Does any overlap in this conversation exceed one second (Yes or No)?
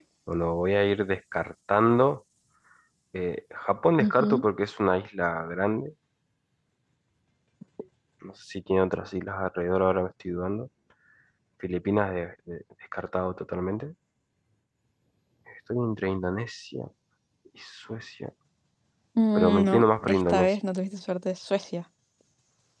Yes